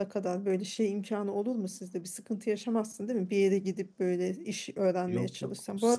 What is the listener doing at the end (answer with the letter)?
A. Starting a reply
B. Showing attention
A